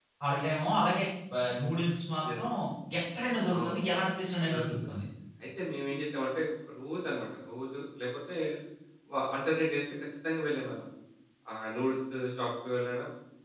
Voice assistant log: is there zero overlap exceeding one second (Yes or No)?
Yes